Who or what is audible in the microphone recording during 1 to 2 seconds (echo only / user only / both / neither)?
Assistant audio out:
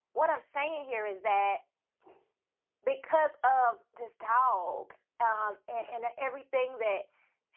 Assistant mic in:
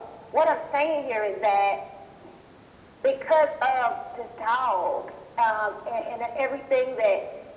echo only